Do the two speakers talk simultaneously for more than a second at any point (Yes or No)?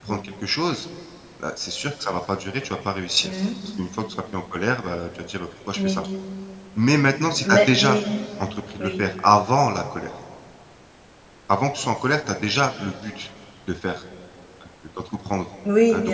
No